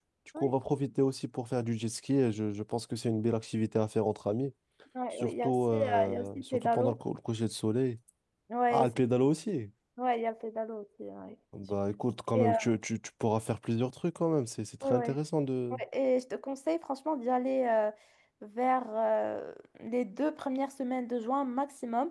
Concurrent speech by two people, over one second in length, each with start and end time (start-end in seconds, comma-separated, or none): 5.1-7.0